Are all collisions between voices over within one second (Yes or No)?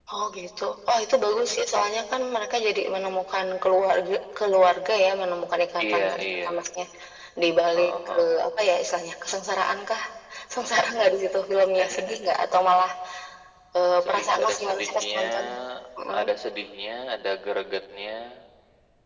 No